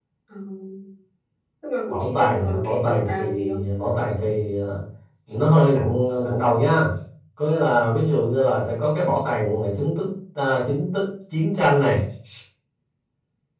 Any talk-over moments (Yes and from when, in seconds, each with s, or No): Yes, from 1.9 s